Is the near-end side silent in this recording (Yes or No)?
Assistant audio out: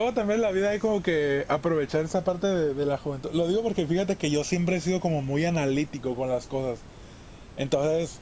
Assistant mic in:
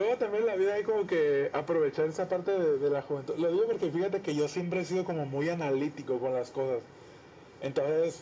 Yes